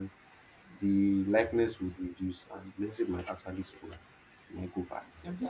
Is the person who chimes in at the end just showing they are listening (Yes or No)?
No